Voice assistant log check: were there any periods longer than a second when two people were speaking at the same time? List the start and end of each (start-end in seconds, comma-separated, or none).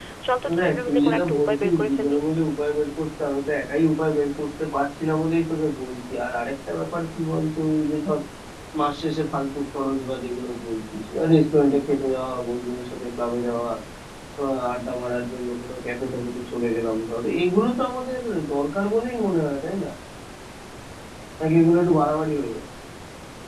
0.6-2.2